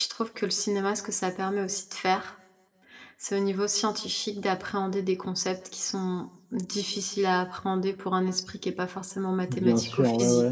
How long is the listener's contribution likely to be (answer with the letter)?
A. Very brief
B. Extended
B